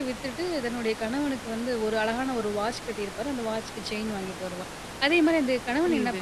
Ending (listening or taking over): listening